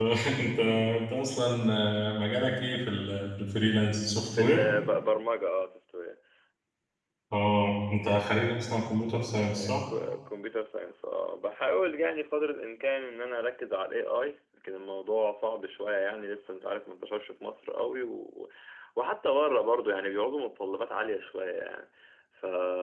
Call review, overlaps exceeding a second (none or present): none